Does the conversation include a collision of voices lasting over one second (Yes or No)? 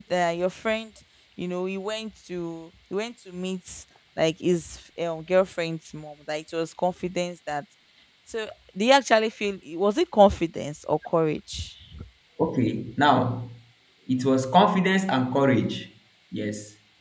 No